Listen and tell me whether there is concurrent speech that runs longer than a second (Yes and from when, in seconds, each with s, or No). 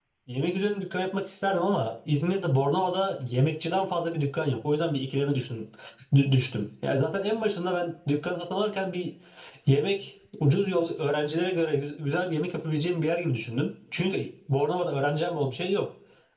No